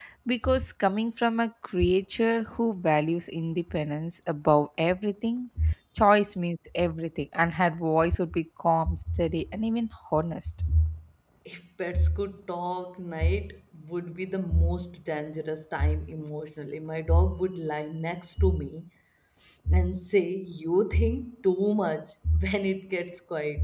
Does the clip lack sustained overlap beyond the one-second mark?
Yes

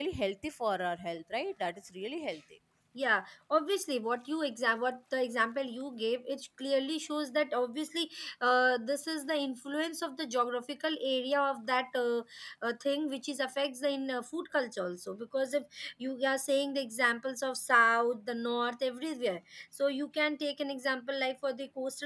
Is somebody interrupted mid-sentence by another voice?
No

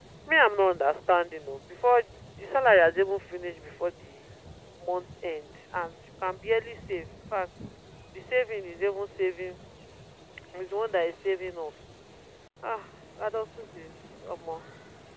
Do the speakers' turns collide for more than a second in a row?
No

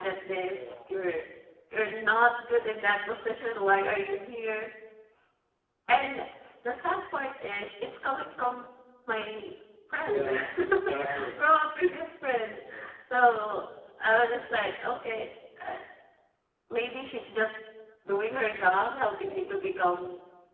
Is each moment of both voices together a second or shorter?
No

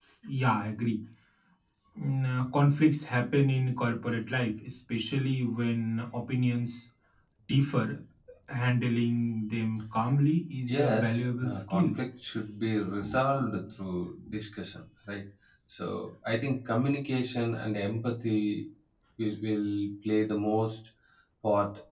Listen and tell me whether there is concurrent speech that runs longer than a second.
Yes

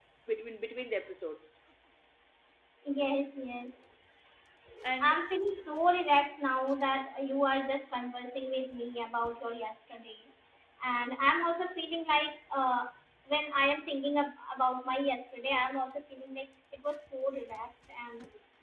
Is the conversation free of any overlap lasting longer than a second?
Yes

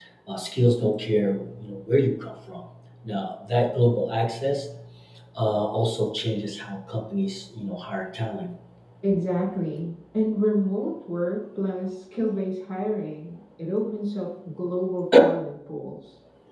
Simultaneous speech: No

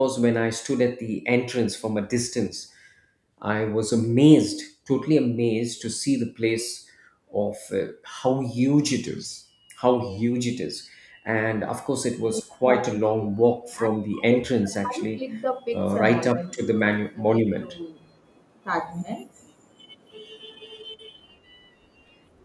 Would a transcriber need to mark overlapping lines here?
Yes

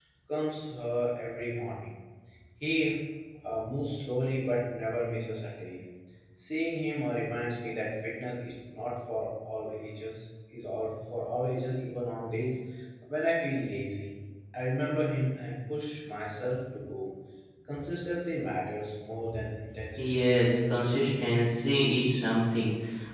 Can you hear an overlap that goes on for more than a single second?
No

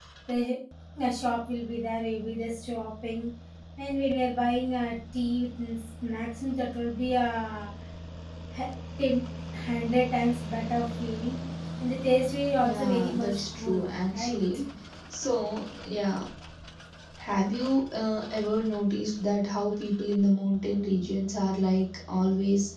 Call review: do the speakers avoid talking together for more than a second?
No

